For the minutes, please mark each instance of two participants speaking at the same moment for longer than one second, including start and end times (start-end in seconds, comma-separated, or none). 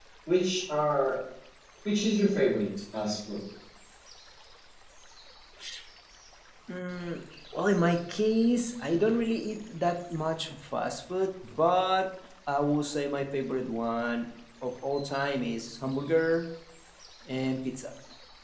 none